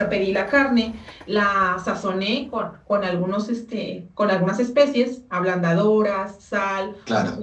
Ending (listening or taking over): listening